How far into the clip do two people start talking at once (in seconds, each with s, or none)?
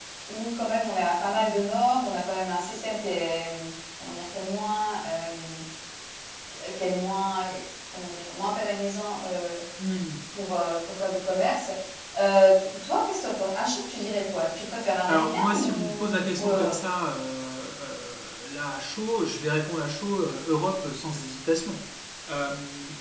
15.1 s